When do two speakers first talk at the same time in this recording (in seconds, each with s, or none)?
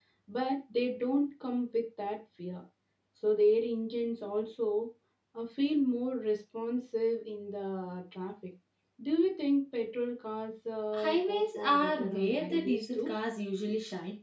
10.9 s